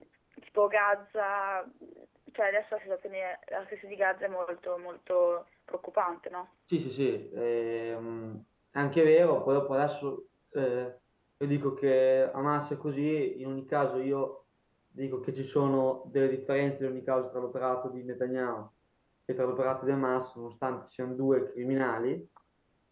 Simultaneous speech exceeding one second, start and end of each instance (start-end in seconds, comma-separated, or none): none